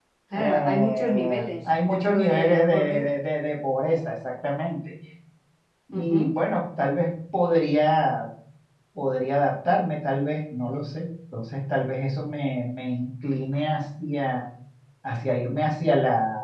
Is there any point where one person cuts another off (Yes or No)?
Yes